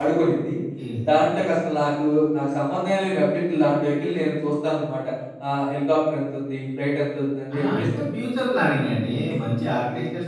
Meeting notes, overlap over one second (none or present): none